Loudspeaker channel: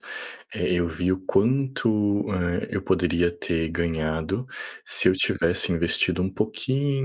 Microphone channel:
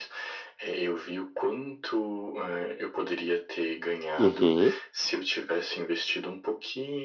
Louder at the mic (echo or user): user